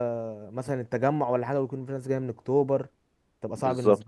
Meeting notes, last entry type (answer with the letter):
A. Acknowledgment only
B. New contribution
B